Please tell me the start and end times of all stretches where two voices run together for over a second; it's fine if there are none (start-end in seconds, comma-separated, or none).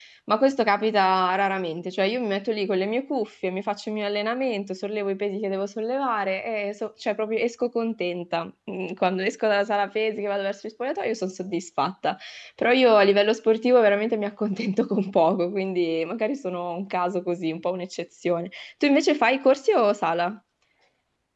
none